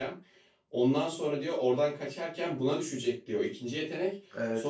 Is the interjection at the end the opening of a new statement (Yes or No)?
No